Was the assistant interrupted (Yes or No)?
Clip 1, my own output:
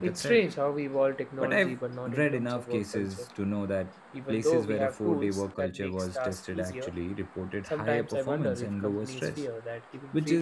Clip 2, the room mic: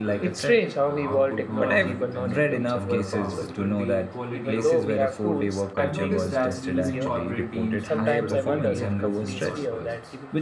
Yes